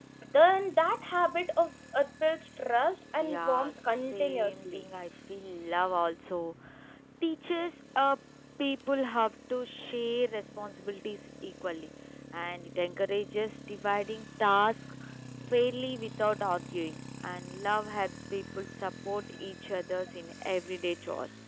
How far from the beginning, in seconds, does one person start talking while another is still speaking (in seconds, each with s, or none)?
3.2 s